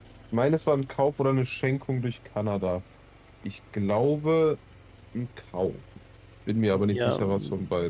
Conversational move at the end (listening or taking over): taking over